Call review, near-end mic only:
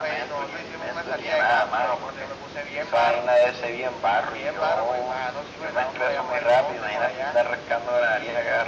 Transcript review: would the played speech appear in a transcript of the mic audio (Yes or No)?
Yes